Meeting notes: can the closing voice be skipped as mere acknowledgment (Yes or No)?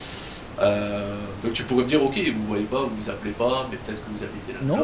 No